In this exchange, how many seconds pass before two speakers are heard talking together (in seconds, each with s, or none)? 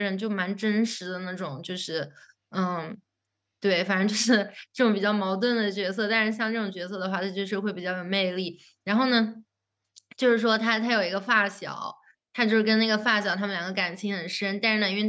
none